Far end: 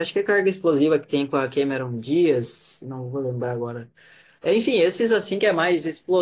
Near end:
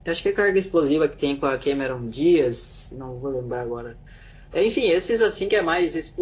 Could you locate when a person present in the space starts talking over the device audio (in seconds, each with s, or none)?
none